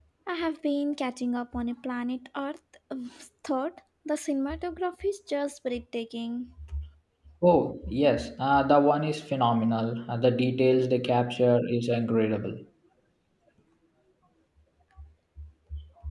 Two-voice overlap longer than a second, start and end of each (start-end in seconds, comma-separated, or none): none